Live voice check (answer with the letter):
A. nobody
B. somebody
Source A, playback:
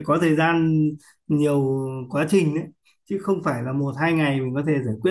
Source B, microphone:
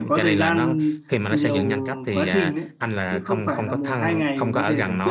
B